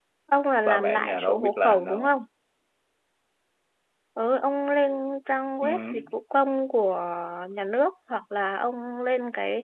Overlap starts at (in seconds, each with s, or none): 0.6 s